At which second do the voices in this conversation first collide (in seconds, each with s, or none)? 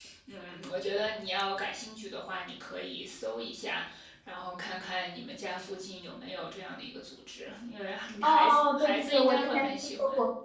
8.2 s